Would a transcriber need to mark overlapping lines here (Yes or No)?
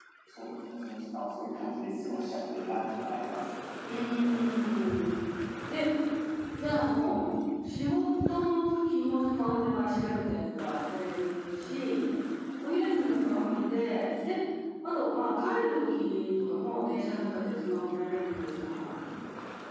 No